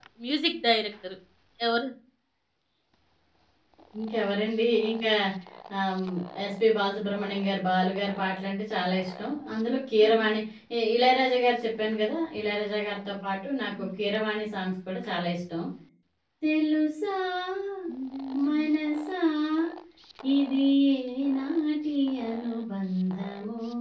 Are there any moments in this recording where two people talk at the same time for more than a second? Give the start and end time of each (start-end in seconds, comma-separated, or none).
none